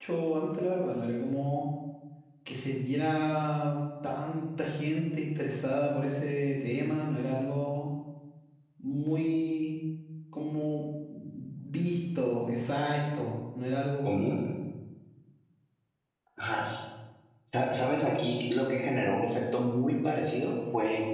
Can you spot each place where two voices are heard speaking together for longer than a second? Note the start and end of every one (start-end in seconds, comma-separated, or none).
none